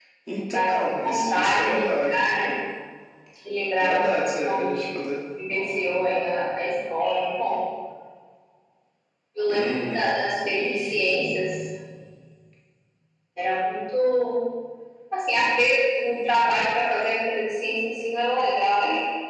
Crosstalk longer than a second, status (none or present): present